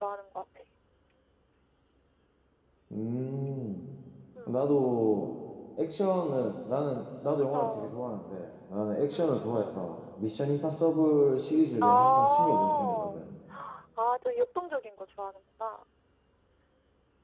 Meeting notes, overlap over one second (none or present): present